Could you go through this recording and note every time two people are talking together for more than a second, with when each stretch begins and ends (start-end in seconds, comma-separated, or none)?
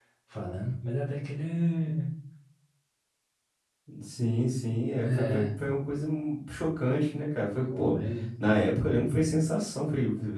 none